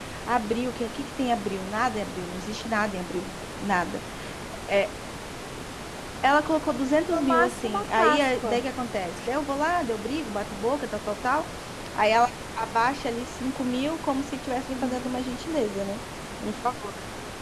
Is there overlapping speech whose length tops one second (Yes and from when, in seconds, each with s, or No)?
Yes, from 7.1 s